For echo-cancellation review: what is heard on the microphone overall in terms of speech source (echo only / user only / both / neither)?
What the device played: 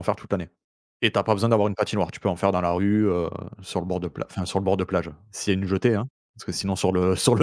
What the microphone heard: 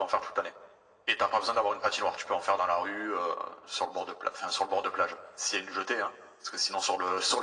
echo only